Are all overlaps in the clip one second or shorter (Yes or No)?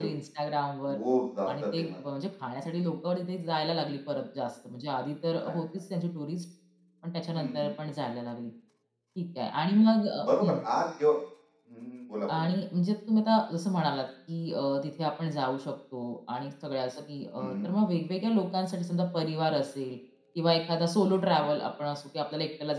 Yes